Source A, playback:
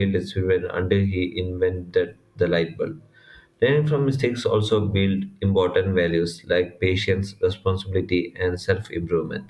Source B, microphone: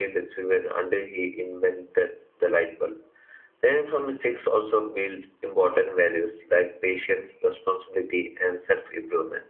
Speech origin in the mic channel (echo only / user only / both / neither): echo only